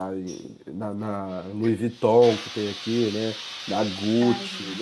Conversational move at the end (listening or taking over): listening